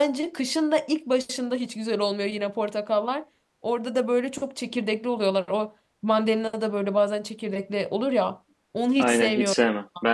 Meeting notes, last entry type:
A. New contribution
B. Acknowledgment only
A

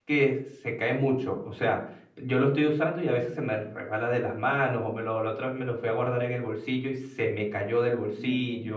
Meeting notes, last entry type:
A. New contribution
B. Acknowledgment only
A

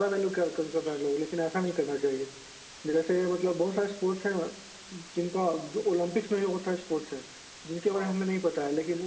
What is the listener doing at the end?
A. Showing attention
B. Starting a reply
A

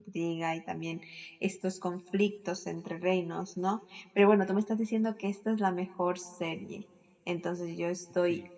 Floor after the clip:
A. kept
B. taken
A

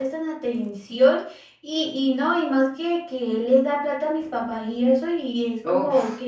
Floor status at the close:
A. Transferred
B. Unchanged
B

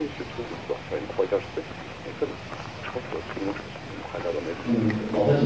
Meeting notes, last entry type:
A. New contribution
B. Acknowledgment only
A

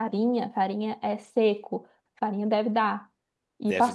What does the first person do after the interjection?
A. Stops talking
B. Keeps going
B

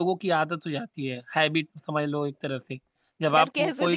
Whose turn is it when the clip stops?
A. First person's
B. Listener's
B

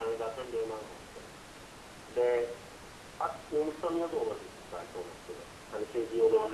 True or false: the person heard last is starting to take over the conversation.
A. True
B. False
A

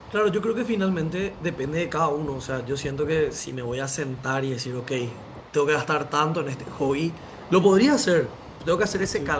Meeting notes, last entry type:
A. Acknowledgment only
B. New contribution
A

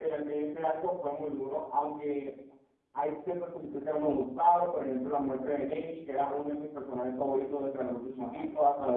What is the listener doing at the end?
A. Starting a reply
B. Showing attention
B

